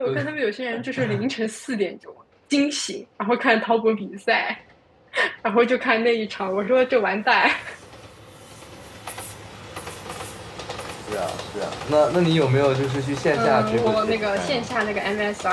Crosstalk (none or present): present